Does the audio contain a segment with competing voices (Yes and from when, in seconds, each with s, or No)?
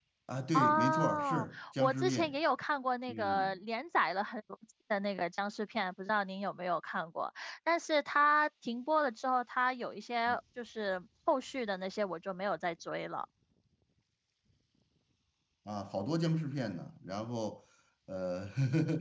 Yes, from 0.5 s